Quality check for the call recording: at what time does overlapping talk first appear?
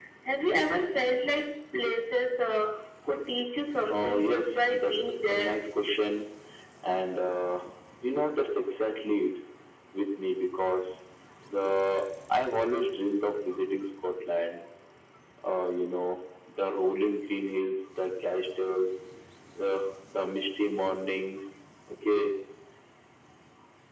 3.9 s

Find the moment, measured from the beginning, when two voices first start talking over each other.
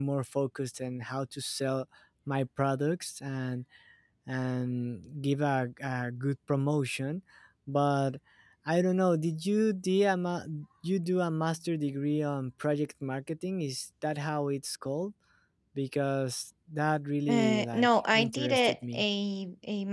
17.3 s

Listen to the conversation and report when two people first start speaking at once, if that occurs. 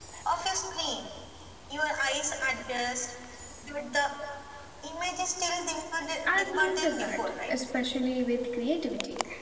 6.2 s

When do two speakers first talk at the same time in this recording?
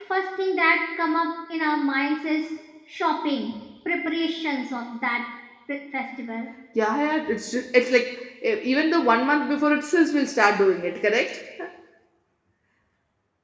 none

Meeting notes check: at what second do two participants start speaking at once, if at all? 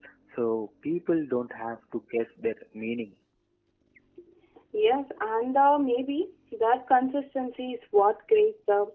none

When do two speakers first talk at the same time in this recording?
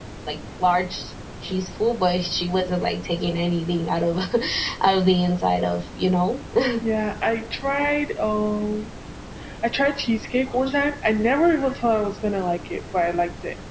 none

